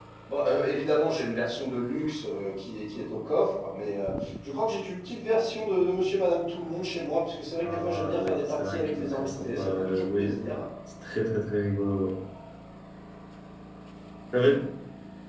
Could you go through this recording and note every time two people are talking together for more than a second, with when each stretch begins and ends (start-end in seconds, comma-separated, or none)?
7.6-10.3